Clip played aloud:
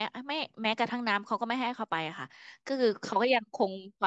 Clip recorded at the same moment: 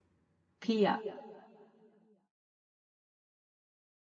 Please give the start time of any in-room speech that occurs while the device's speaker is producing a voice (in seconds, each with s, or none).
0.6 s